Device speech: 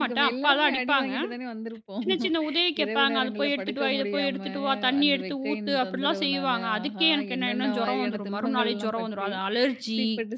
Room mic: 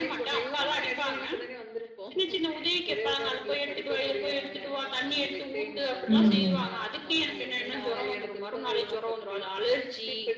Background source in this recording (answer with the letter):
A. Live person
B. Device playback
B